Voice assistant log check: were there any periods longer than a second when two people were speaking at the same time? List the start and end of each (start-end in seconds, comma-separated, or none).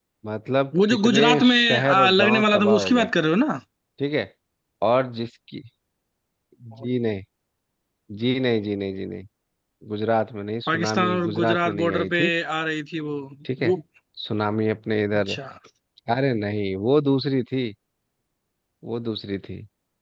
0.9-3.0, 10.7-12.2